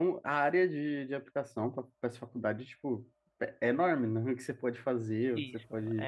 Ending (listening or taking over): taking over